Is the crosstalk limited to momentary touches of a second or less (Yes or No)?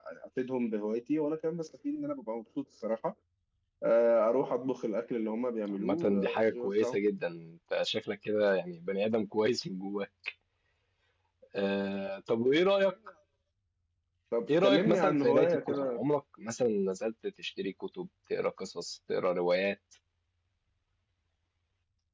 No